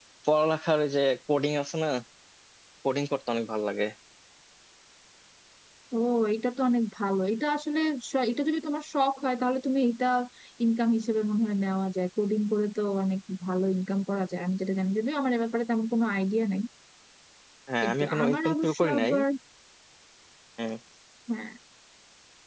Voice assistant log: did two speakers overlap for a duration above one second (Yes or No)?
Yes